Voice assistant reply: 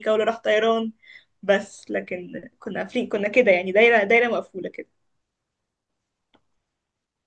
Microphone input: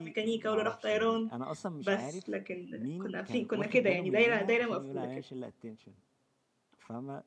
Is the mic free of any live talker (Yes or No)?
No